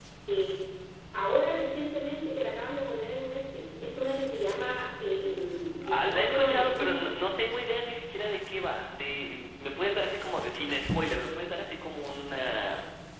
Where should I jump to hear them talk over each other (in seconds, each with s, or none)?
5.8 s